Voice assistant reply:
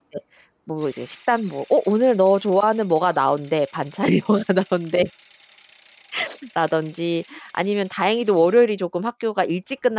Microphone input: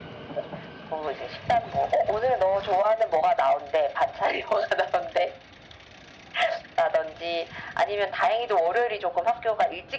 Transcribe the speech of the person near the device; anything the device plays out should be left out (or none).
none